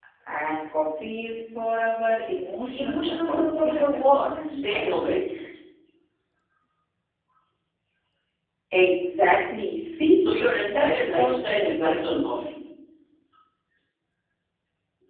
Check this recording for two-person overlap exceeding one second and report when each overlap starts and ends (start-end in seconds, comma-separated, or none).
2.7-5.0, 10.7-12.3